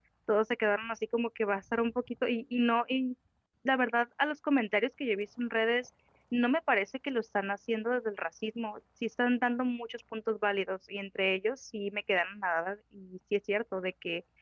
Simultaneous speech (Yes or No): No